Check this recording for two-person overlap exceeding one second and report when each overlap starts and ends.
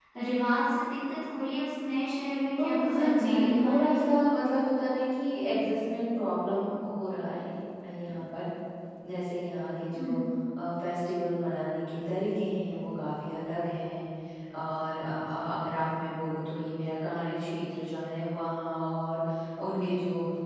2.6-4.1

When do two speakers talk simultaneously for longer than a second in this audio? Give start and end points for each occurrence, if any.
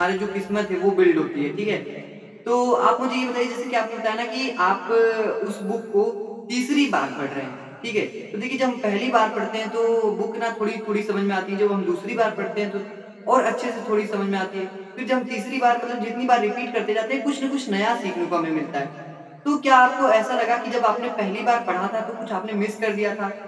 none

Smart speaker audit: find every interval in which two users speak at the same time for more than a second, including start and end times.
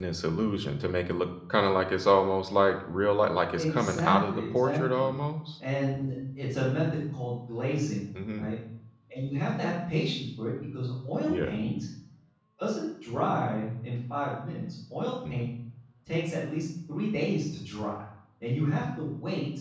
3.5-5.1

